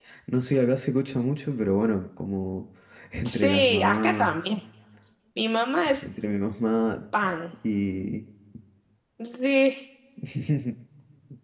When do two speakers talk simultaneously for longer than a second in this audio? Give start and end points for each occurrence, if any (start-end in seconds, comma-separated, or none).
3.2-4.5